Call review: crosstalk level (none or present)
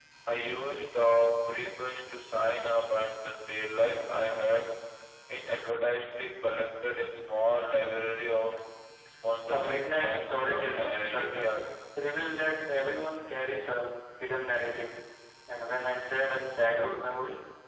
present